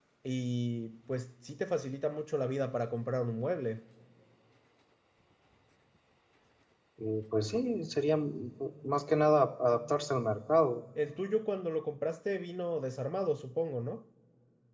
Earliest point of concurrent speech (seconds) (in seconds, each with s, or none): none